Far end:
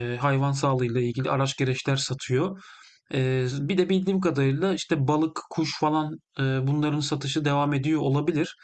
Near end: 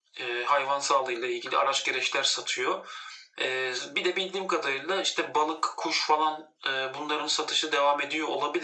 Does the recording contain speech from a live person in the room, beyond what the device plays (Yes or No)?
No